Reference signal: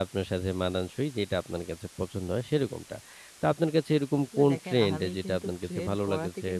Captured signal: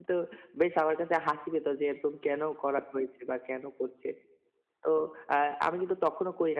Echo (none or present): none